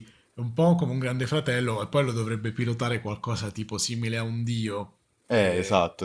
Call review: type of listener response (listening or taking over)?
taking over